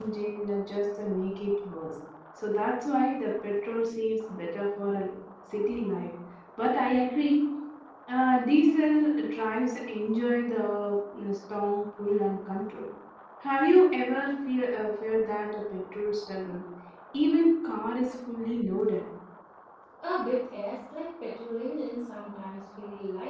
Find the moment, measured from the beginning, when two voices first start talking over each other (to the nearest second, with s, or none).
none